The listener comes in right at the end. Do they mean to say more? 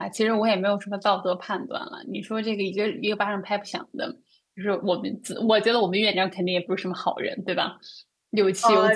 Yes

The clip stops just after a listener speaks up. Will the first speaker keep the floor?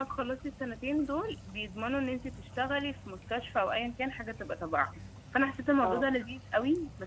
Yes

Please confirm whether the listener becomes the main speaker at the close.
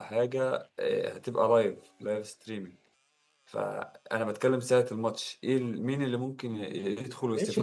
Yes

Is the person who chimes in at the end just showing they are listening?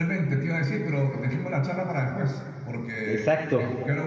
Yes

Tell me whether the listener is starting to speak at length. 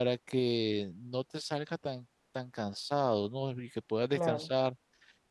No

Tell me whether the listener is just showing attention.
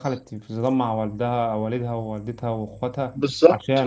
No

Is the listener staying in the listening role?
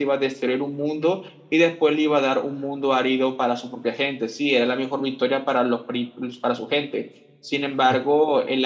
Yes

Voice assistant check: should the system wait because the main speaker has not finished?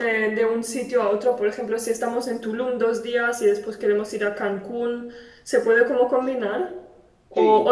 Yes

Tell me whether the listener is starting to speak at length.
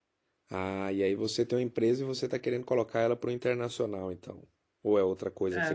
Yes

